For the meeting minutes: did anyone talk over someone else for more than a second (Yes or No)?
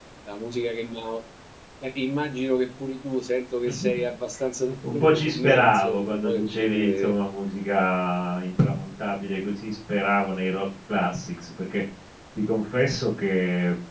Yes